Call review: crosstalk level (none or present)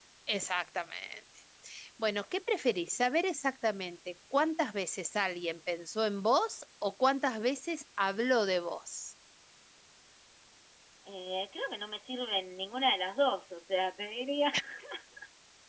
none